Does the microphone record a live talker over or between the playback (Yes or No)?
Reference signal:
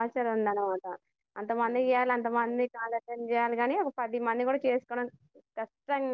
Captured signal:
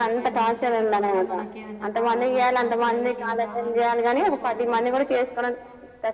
Yes